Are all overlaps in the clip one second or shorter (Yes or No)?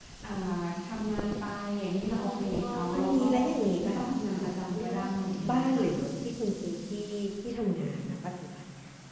No